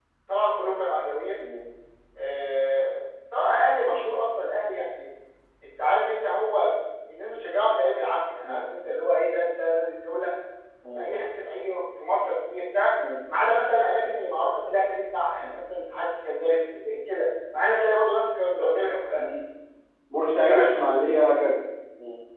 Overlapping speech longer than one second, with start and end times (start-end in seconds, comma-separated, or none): none